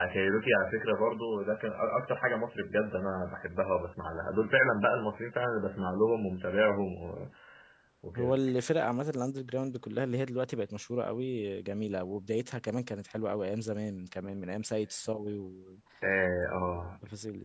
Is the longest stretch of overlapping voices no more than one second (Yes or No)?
Yes